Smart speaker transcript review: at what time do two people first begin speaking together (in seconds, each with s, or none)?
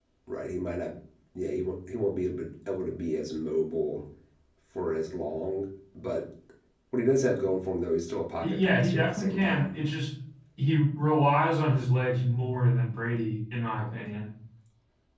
8.4 s